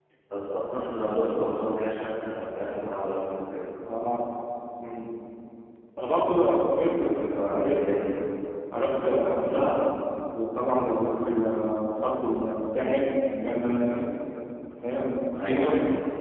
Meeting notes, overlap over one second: present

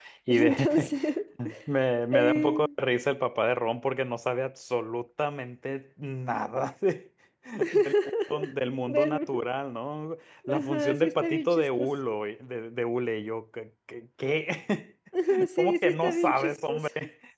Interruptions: present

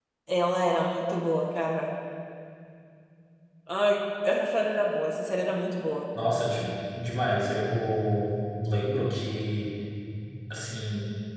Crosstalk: none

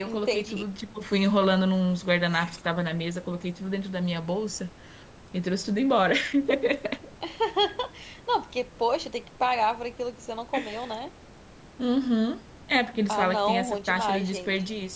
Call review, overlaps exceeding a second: present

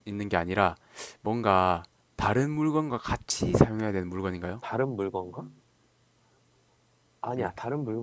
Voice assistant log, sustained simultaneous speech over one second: none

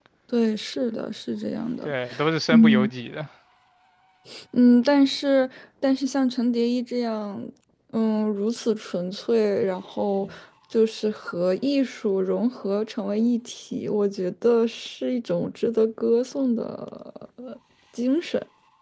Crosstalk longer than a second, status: none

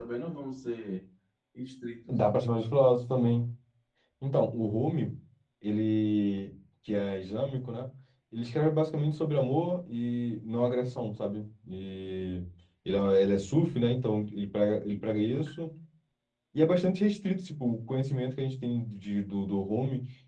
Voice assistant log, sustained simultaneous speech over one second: none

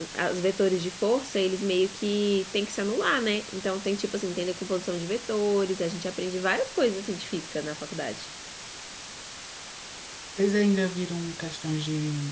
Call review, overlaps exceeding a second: none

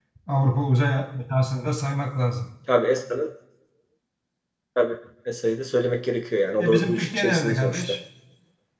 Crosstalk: present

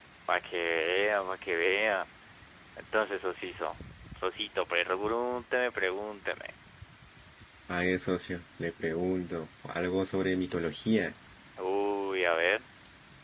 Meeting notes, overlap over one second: none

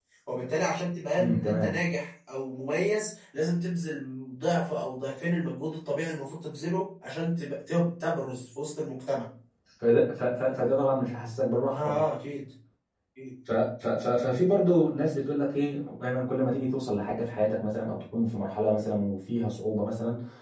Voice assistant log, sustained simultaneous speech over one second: none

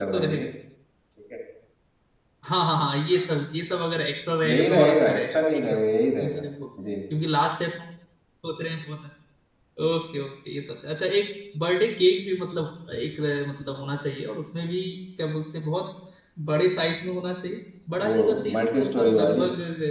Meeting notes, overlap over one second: present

